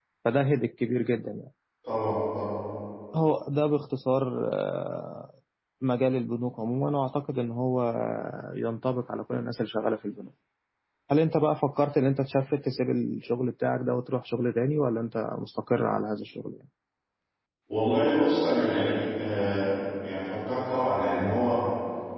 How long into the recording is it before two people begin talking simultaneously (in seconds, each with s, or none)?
none